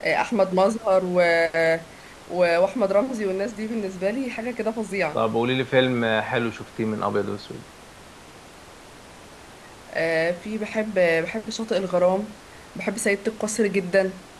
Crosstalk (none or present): none